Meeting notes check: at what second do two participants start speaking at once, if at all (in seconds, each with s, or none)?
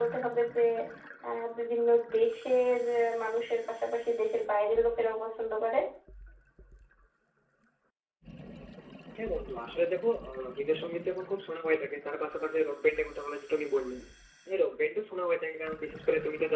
none